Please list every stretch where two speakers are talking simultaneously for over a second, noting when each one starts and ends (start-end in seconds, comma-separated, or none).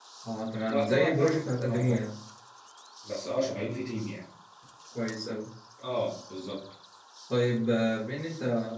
0.7-2.0